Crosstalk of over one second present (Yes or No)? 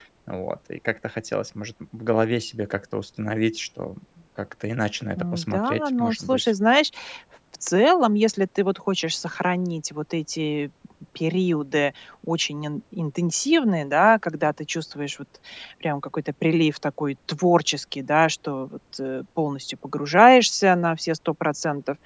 Yes